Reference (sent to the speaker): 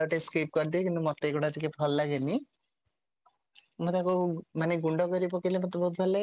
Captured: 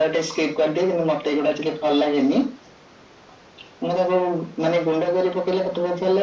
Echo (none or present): present